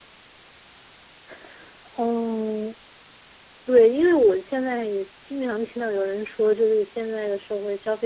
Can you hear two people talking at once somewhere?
No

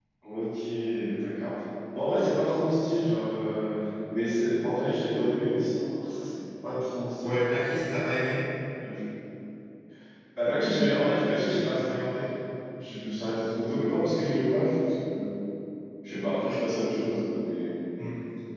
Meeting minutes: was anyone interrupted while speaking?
No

